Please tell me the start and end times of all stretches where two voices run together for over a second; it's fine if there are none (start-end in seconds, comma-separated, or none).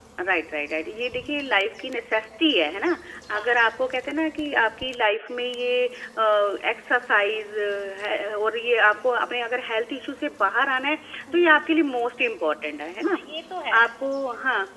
none